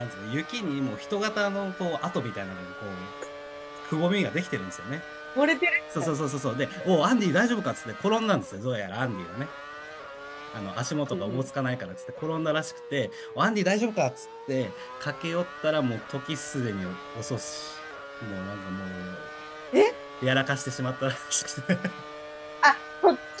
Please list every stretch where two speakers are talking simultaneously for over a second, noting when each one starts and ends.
none

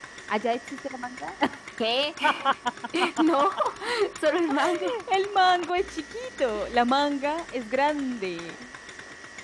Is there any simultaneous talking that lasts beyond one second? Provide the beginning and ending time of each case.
none

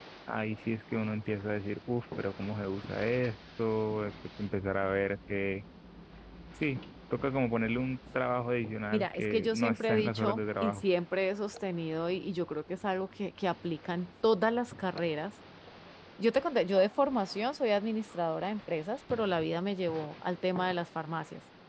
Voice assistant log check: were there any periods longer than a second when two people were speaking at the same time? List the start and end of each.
8.9-10.8

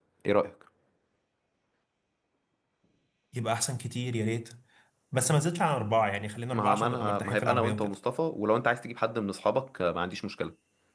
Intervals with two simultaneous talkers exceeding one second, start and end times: 6.5-8.0

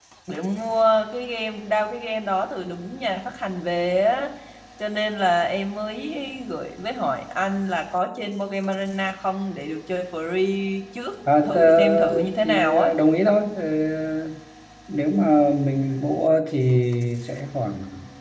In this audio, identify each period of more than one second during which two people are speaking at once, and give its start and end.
11.4-12.9

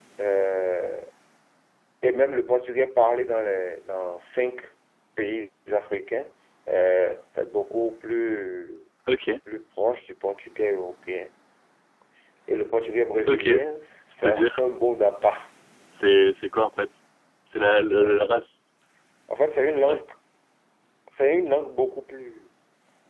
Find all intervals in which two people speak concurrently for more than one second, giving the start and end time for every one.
none

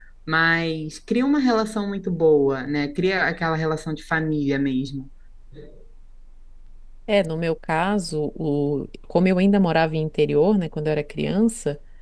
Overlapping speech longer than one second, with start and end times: none

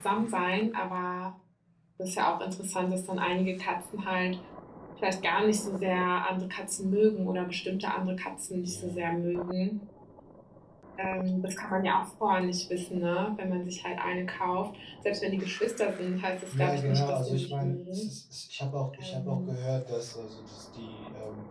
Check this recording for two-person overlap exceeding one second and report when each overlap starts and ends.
16.5-18.1

